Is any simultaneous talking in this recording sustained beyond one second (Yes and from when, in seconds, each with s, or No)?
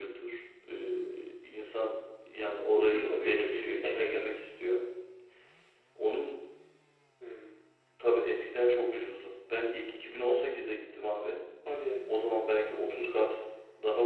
Yes, from 2.8 s